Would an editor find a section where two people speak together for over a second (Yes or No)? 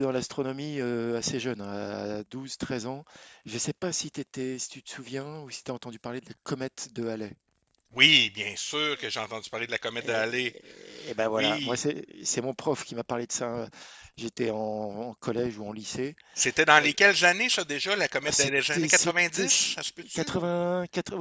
Yes